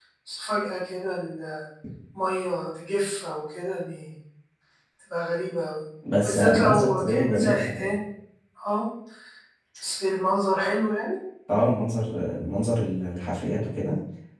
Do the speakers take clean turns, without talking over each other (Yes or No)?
No